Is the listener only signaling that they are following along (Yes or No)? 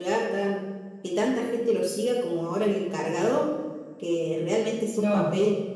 Yes